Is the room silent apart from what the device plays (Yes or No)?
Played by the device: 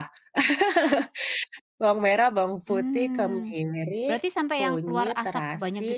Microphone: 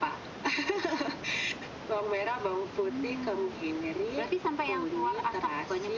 Yes